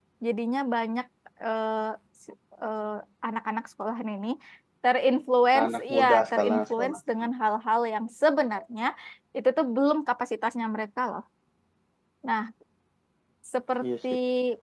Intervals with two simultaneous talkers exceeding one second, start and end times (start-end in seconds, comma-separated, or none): 5.6-7.0